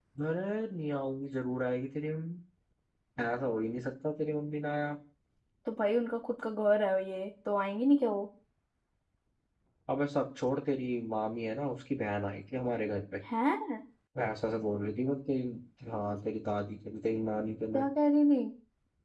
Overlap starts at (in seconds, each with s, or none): none